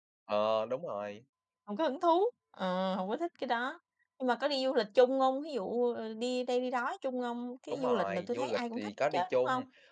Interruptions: present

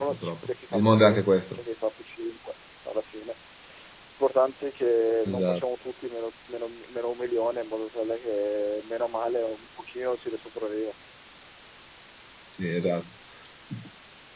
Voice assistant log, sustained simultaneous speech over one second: present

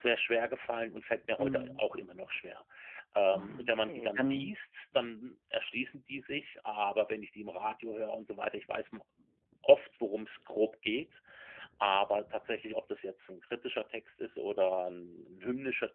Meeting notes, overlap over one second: present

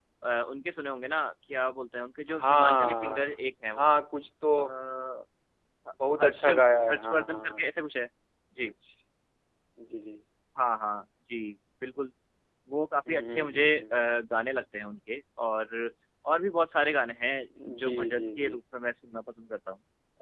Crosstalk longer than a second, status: present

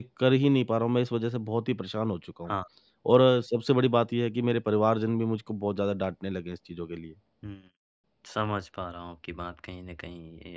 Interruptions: none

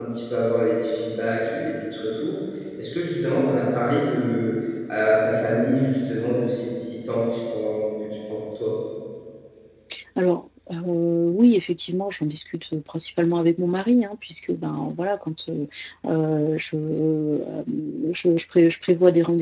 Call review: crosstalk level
none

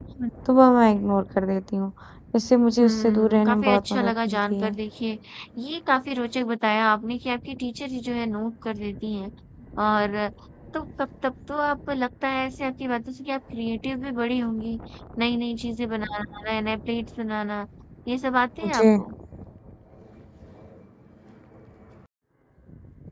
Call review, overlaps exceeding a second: present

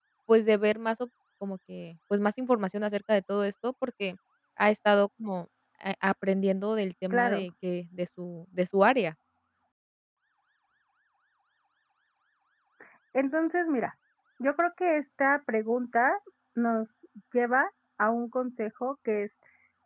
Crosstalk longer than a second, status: none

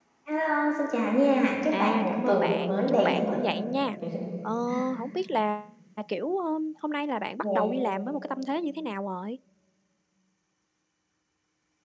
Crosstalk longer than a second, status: present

